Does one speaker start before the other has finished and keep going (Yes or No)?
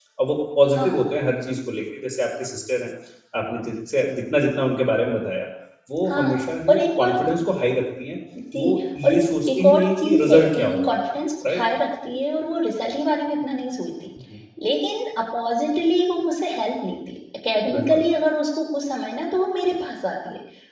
Yes